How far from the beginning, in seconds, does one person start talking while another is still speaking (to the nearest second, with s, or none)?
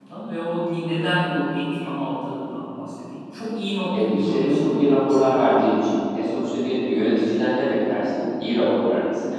4 s